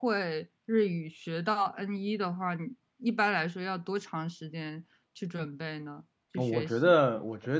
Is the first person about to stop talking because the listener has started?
Yes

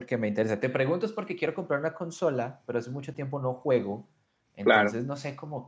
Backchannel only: Yes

